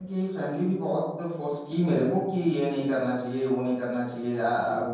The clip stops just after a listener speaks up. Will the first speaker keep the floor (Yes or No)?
Yes